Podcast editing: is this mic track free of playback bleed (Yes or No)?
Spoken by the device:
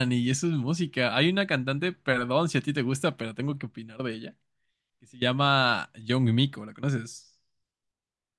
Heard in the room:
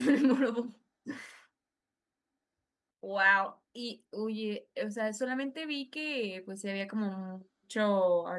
Yes